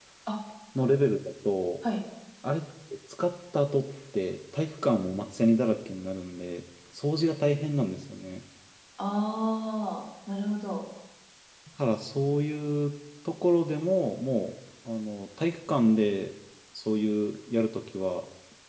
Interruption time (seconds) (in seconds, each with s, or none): none